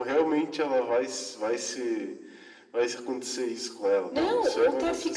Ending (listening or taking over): taking over